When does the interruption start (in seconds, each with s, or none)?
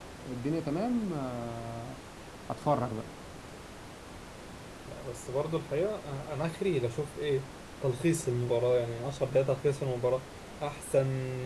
none